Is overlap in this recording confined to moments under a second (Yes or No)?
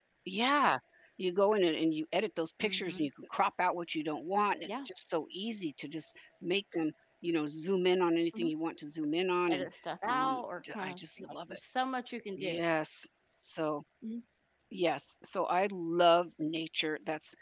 No